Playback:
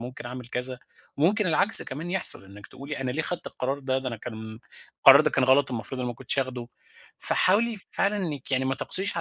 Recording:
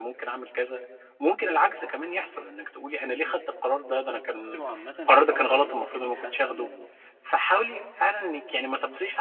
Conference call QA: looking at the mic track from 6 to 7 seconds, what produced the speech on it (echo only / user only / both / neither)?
both